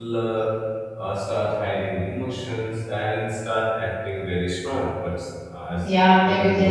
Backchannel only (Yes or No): No